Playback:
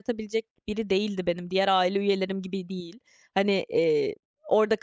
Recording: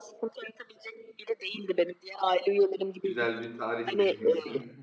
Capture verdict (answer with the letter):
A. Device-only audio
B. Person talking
B